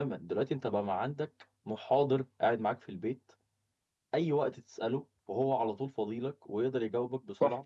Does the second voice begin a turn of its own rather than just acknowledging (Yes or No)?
Yes